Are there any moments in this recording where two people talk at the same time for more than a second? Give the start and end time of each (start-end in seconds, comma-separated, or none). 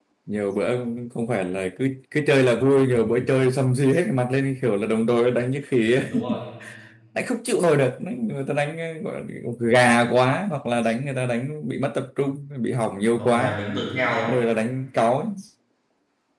none